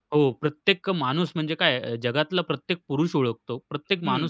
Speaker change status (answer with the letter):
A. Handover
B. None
A